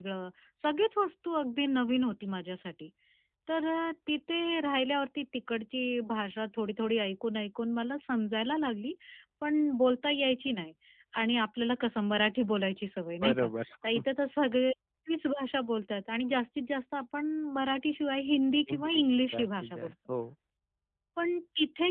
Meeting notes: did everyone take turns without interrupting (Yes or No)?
No